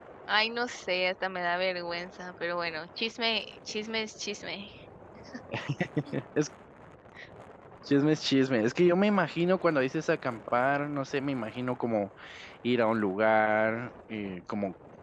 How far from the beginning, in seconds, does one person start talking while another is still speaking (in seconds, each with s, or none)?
none